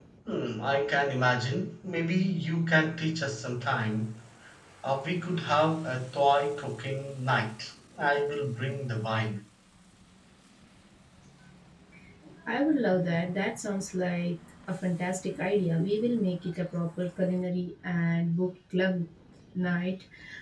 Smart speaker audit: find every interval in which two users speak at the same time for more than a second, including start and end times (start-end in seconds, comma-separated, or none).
none